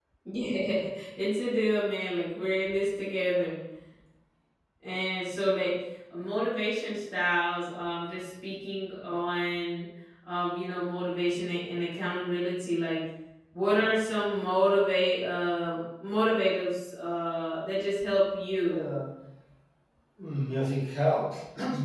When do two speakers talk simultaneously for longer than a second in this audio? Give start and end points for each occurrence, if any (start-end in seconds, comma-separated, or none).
none